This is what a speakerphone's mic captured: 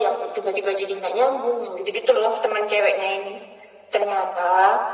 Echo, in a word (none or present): present